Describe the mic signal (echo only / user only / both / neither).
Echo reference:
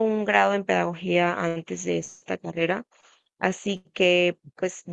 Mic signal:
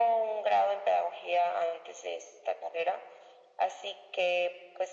echo only